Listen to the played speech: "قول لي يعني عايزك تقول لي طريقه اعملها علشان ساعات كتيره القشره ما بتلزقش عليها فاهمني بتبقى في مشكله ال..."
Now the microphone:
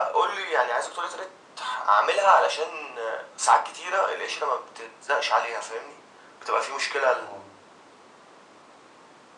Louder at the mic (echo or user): echo